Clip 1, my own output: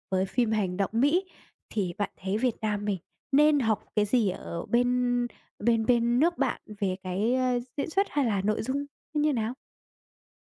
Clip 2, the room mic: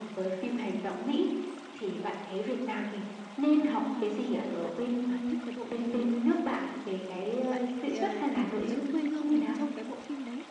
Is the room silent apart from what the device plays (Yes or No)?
No